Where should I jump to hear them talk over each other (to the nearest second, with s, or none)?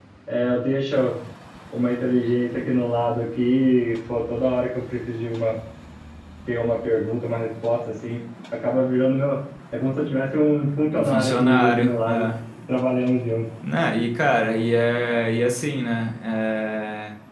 11 s